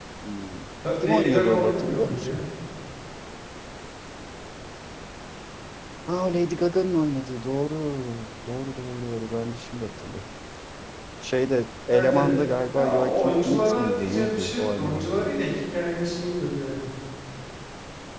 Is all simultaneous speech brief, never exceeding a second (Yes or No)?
No